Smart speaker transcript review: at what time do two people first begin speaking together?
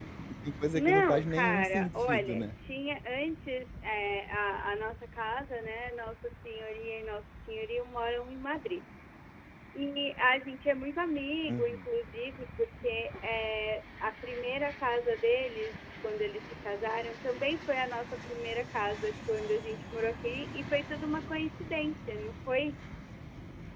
0.8 s

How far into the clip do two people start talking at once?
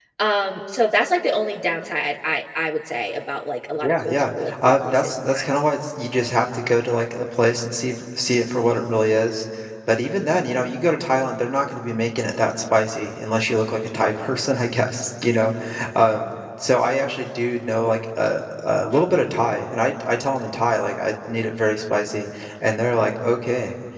3.8 s

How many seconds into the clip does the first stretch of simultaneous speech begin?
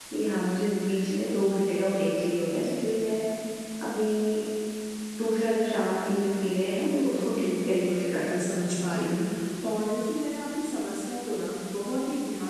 6.8 s

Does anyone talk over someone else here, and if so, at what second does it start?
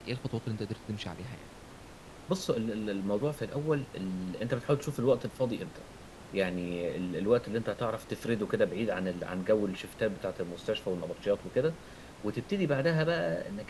none

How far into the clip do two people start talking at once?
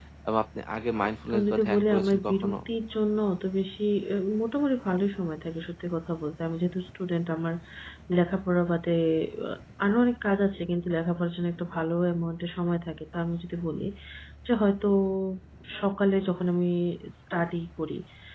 1.3 s

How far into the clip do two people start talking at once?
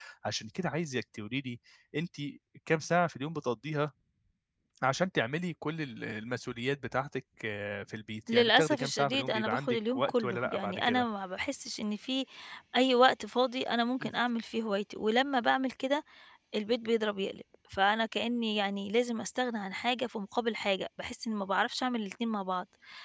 8.3 s

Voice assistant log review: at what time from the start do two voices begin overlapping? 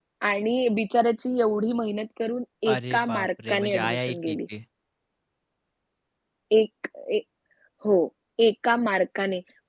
2.7 s

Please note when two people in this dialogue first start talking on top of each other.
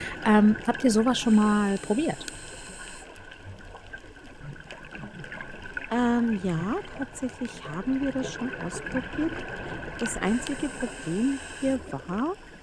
none

